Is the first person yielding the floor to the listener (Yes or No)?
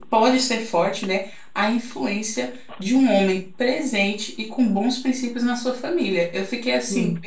No